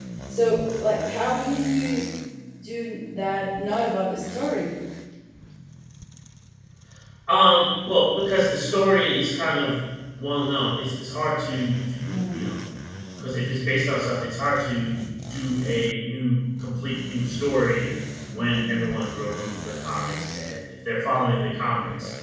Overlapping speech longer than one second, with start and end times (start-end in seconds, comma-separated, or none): none